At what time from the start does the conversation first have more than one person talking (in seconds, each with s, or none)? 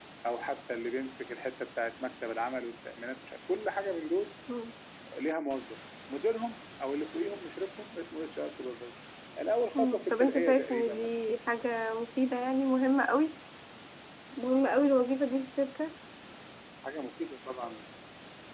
9.8 s